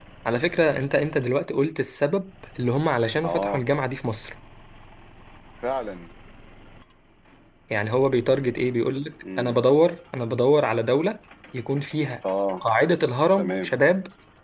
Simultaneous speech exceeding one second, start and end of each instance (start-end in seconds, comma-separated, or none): none